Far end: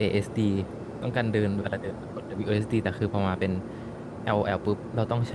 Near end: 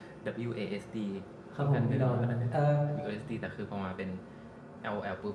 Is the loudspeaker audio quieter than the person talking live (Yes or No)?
Yes